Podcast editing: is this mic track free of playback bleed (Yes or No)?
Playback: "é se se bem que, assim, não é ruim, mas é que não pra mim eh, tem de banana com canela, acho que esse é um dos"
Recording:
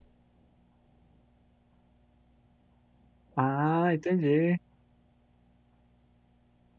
Yes